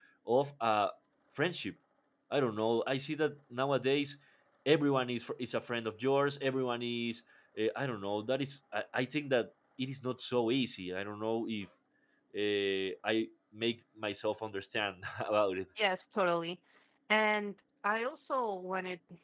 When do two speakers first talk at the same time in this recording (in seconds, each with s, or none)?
none